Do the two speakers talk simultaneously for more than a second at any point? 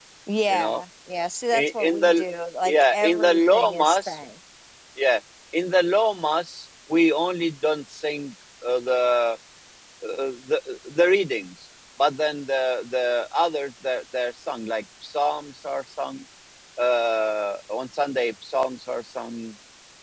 Yes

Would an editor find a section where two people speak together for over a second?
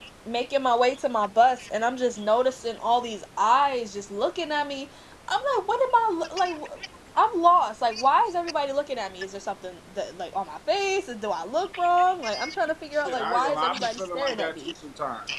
Yes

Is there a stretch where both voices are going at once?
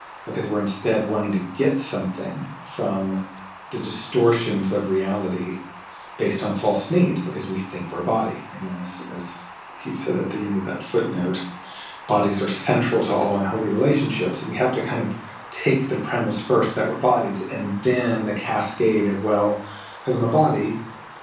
No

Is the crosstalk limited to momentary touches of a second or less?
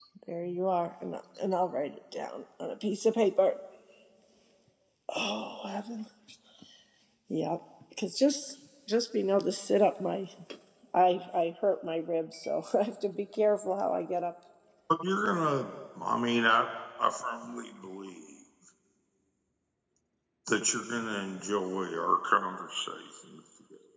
Yes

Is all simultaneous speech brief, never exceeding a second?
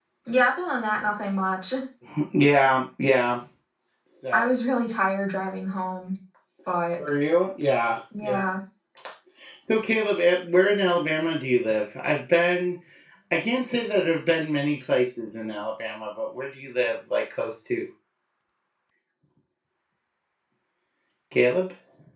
Yes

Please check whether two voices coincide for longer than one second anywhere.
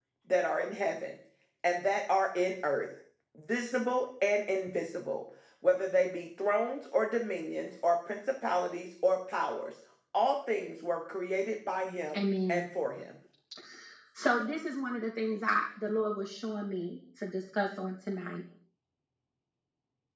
No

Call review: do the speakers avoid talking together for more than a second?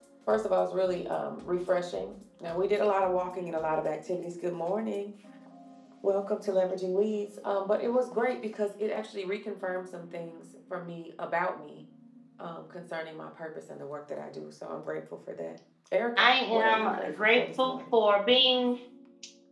No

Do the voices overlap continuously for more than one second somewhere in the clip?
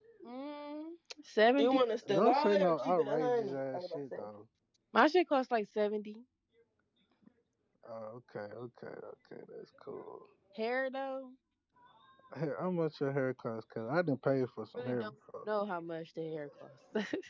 Yes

